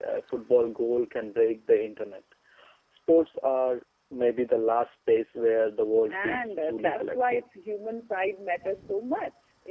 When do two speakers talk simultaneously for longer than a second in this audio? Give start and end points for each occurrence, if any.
6.1-7.4

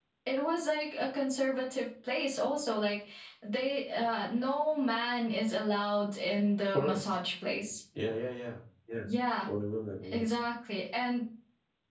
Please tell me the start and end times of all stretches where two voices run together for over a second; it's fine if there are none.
none

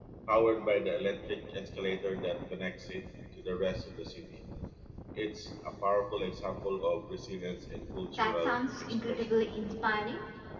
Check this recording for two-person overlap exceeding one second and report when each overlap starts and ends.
8.1-9.4

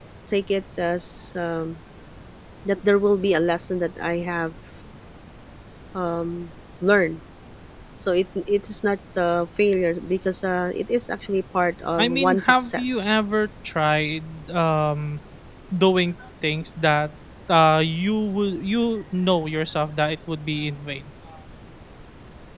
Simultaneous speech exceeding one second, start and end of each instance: 12.0-13.2

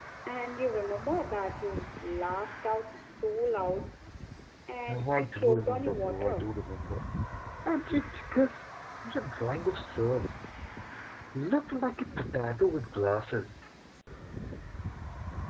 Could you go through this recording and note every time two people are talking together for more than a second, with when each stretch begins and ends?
4.9-6.5

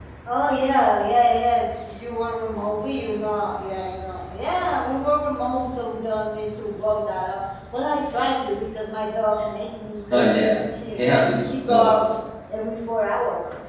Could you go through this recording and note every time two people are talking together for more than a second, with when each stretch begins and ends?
10.1-12.1

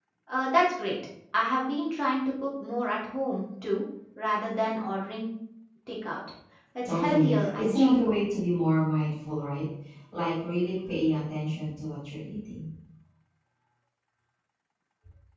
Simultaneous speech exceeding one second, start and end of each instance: 6.8-8.2

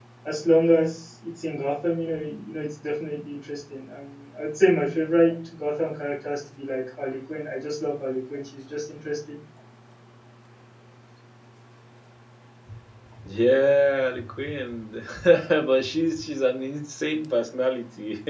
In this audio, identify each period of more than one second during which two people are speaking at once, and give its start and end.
none

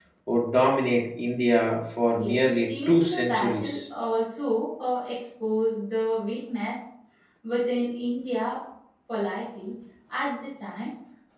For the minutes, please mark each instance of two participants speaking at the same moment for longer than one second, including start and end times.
2.2-3.8

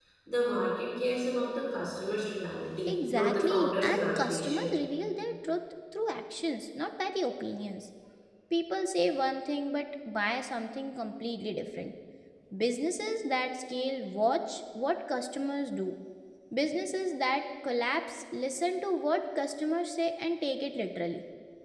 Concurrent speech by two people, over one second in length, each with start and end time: 2.9-4.8

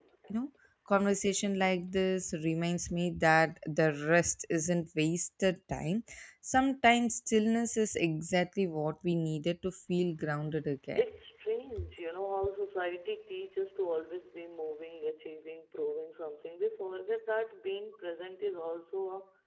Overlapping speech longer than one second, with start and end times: none

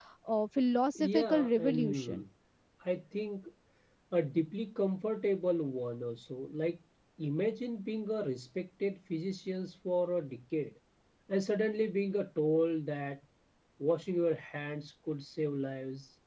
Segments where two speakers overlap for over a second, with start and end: 0.9-2.2

